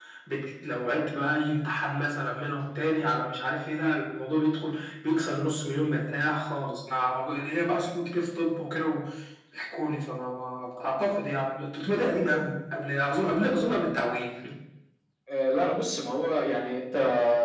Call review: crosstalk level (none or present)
none